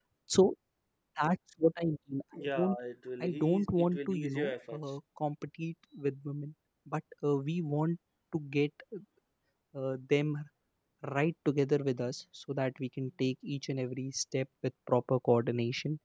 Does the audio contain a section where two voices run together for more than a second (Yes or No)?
Yes